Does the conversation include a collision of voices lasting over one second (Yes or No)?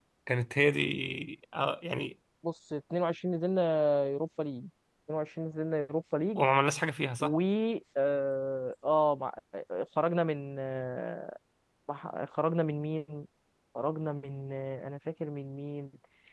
No